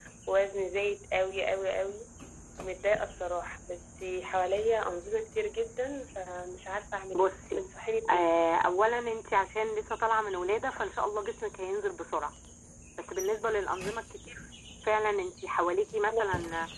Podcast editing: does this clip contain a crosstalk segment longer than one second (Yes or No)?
No